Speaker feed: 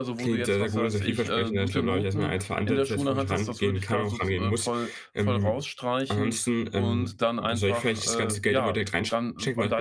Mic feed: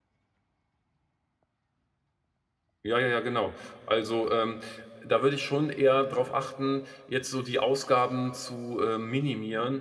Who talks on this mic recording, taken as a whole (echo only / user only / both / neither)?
user only